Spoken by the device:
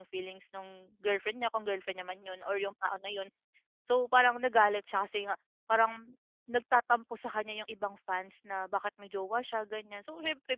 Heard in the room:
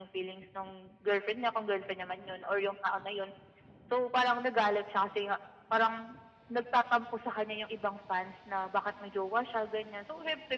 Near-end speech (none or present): none